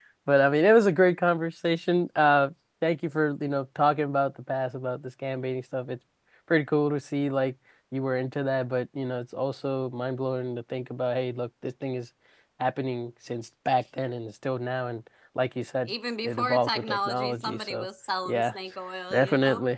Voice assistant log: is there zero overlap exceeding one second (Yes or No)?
No